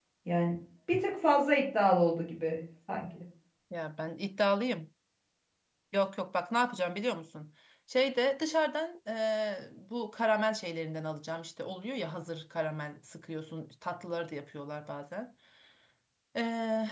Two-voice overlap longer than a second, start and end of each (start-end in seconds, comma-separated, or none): none